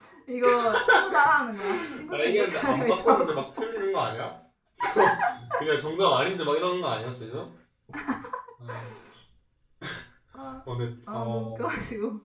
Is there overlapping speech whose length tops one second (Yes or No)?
Yes